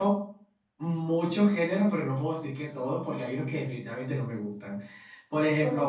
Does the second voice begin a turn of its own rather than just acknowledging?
No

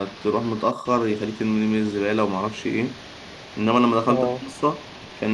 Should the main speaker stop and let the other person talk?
No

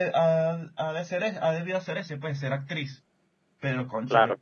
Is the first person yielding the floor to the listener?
No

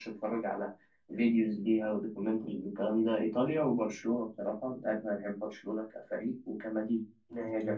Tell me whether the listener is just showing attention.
No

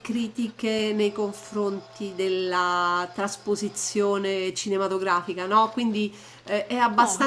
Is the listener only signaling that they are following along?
Yes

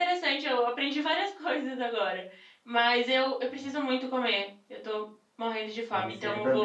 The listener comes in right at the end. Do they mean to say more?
Yes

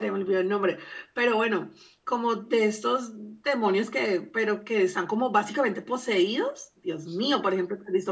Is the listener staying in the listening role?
Yes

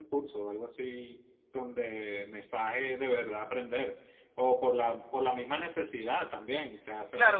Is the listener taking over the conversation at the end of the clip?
Yes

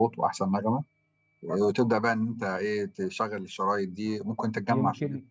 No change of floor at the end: No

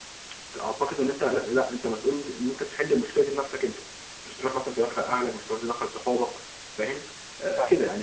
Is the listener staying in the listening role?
Yes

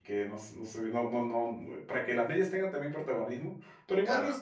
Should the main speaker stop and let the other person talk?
No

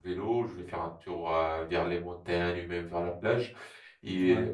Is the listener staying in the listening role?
Yes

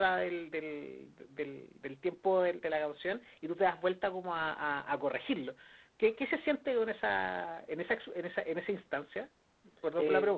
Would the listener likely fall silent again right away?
No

